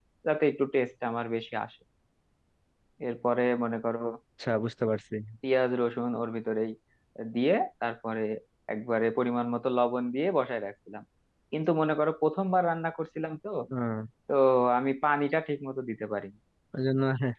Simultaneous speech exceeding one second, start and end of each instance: none

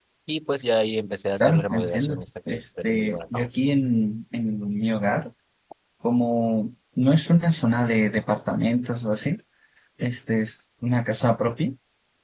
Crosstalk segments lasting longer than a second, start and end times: 1.4-3.5

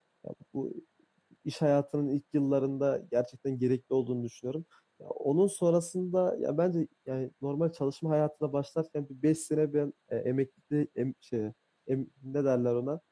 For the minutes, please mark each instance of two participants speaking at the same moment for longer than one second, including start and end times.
none

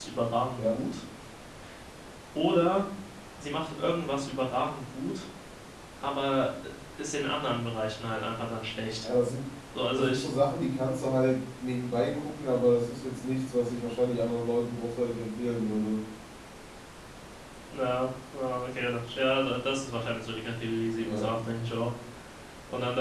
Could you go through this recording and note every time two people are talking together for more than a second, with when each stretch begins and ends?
none

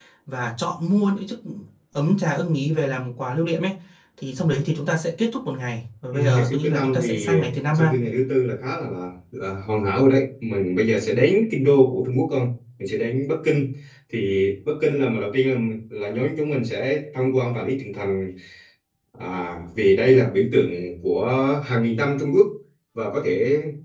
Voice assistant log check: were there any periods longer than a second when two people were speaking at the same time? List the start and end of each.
6.1-7.3

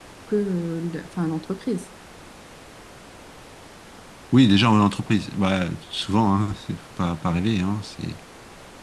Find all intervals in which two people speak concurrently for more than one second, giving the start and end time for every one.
none

